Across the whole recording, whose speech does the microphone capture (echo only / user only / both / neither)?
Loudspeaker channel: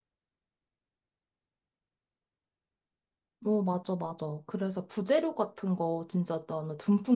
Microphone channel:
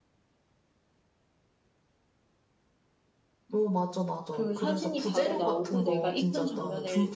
both